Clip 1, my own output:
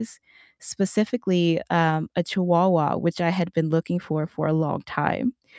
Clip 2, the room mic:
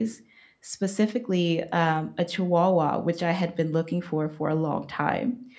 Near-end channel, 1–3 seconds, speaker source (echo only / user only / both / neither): echo only